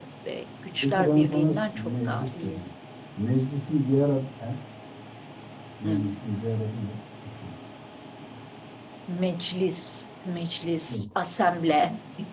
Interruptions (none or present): present